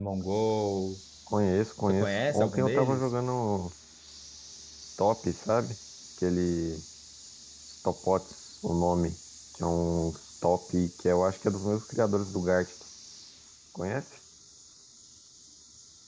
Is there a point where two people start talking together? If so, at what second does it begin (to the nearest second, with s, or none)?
2 s